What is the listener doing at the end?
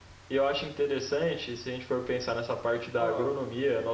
listening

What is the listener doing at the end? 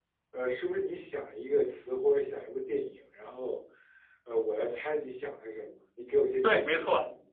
taking over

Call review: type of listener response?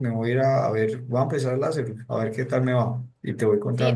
taking over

